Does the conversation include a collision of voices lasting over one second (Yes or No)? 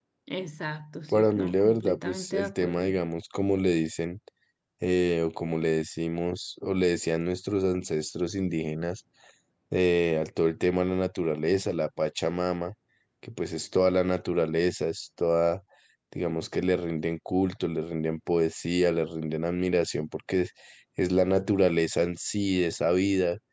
Yes